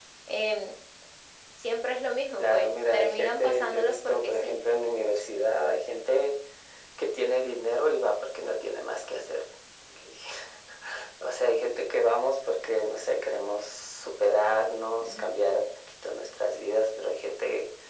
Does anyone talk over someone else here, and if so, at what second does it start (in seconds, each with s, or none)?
2.4 s